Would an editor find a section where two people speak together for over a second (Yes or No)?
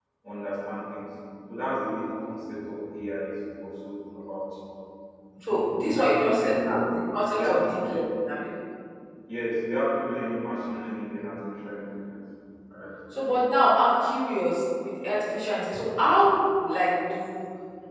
Yes